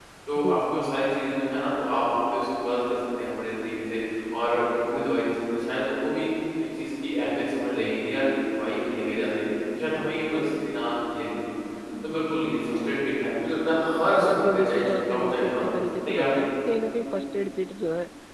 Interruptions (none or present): present